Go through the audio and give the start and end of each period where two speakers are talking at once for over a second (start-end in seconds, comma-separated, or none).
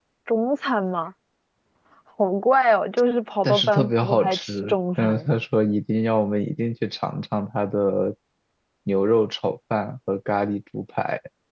3.4-5.3